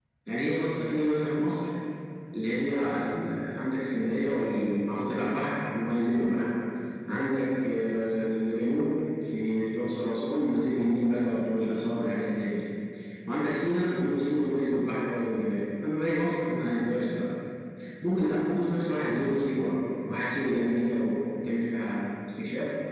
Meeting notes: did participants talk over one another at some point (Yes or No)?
No